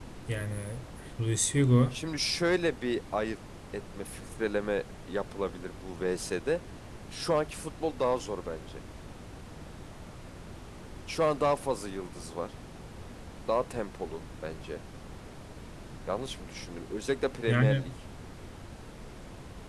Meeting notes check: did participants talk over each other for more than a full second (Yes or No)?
No